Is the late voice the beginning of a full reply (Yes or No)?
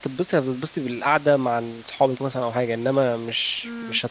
Yes